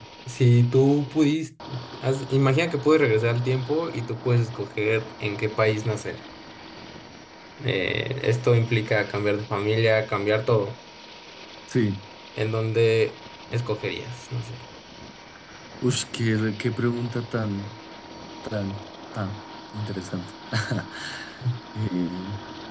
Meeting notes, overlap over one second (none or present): none